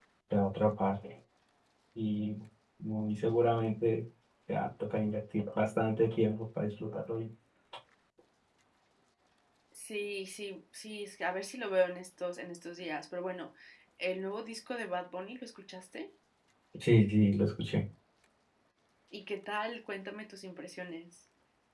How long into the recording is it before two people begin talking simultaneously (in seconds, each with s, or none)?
none